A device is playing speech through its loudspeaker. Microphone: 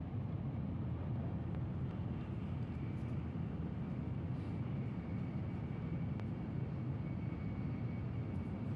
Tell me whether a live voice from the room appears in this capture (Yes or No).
No